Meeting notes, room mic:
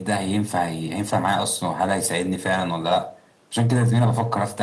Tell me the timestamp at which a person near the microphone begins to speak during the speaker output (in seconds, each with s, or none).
none